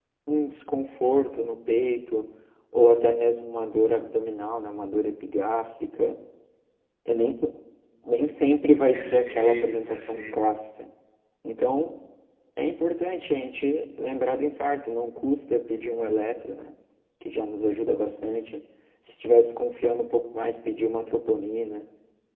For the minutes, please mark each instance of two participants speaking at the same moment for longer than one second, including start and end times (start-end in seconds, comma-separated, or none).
8.9-10.4